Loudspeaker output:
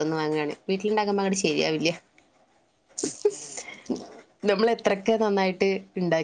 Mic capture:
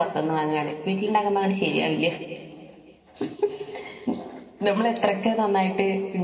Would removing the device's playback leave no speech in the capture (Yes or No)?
Yes